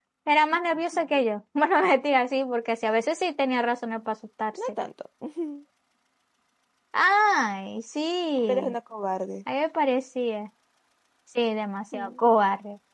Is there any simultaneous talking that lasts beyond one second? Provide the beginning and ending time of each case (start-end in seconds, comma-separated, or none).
none